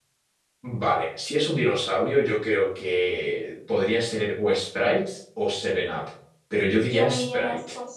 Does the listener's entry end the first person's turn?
Yes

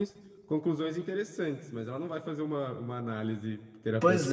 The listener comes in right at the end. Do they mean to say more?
Yes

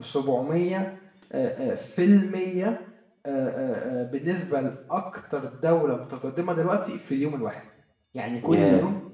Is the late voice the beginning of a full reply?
No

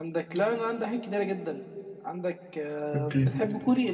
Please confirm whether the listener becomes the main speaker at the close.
No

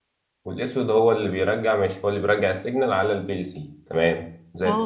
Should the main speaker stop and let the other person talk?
Yes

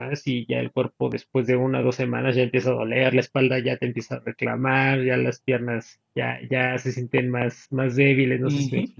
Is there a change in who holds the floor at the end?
Yes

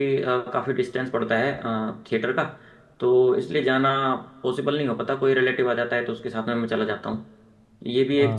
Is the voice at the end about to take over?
No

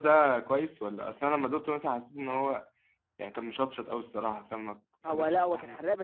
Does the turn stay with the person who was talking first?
No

